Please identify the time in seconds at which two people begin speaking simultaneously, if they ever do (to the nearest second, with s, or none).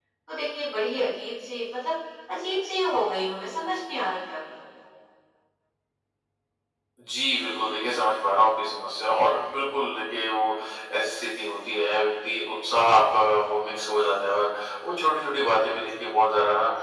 none